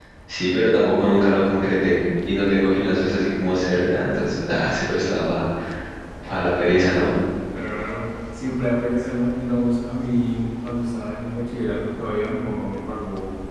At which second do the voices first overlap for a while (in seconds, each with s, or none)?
none